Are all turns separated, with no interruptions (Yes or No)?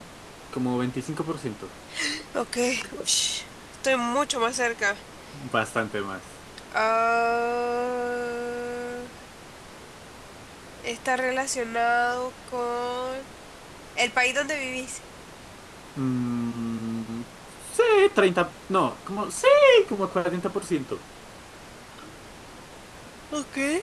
Yes